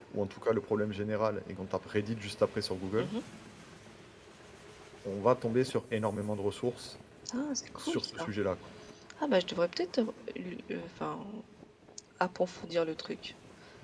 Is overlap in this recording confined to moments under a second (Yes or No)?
Yes